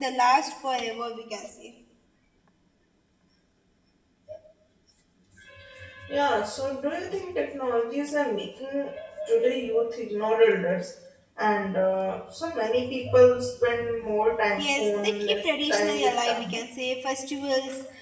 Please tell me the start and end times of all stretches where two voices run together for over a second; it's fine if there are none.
14.6-16.6

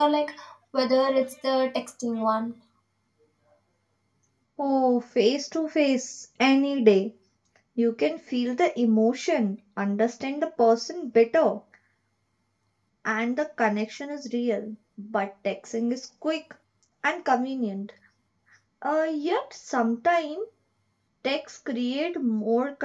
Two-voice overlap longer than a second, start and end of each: none

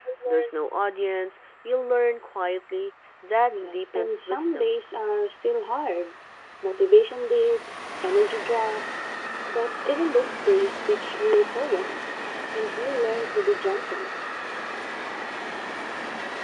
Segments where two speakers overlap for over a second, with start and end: 3.5-4.8

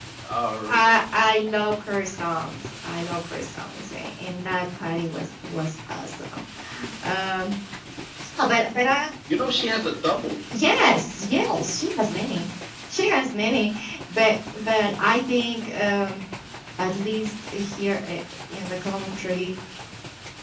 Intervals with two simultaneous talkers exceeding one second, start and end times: none

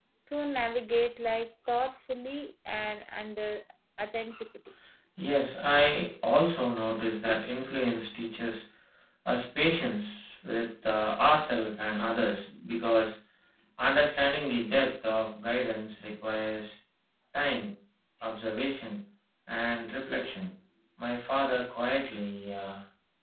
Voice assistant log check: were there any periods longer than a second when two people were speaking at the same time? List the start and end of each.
none

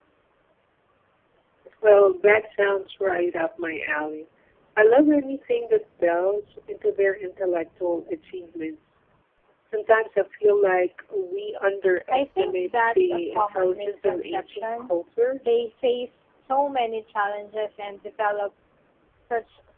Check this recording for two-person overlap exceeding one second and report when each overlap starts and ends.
12.1-14.9

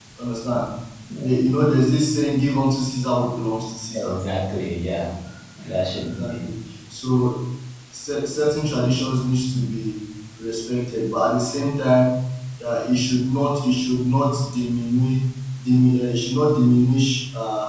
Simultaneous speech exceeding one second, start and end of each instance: none

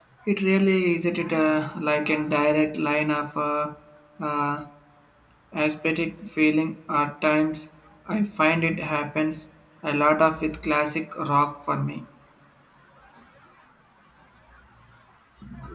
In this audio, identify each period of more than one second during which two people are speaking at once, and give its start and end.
none

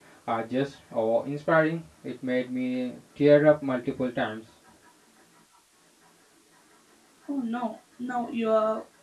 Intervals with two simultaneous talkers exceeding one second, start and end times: none

